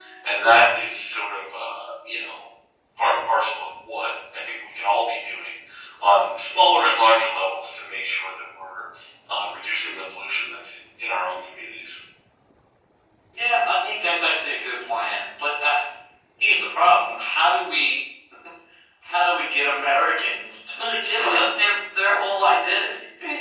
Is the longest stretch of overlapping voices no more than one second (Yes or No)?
Yes